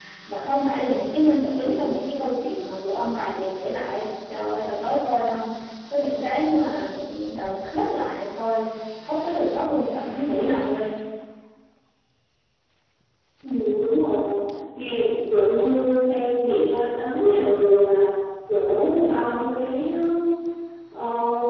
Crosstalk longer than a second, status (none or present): none